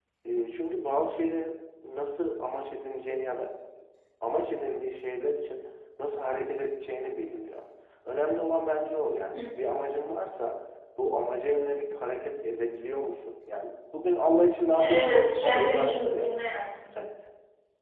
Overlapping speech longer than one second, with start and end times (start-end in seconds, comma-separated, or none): 14.9-16.3